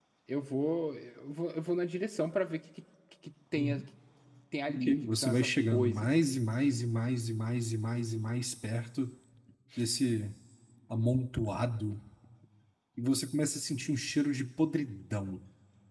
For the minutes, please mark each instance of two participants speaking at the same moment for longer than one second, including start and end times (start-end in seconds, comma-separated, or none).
4.7-6.1